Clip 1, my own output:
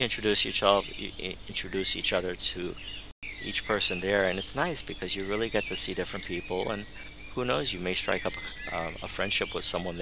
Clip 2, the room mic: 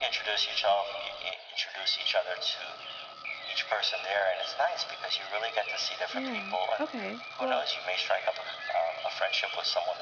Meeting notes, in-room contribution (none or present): present